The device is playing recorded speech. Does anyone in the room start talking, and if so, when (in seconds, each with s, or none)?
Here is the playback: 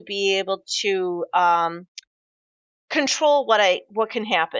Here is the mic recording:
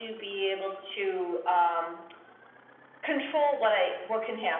none